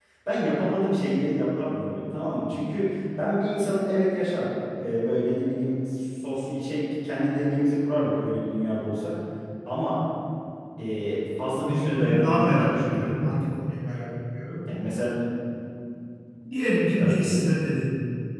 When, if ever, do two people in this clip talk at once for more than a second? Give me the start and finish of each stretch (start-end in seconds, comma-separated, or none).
11.6-13.4